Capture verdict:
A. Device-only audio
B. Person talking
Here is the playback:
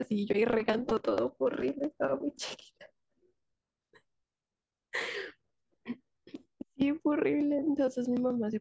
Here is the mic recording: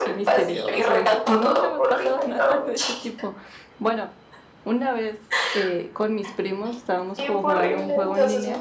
B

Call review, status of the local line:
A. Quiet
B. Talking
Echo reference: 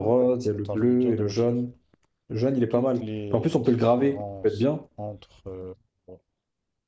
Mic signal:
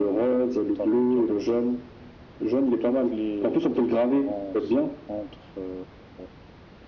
A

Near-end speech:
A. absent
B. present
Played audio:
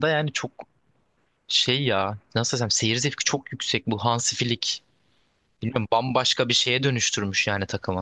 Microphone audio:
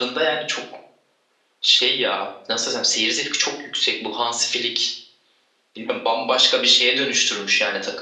A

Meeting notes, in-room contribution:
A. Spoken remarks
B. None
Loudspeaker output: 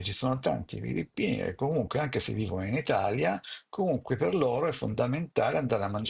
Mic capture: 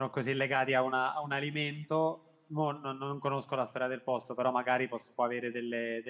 A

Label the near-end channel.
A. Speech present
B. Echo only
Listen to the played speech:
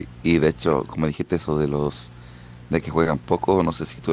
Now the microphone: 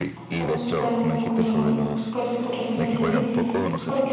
A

